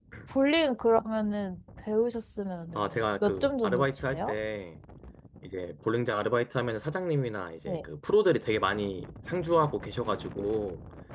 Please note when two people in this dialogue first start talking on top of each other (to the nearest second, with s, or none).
3 s